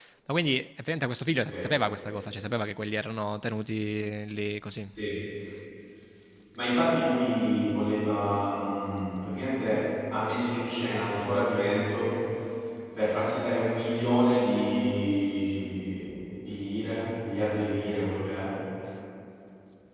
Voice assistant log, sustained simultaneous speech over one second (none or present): none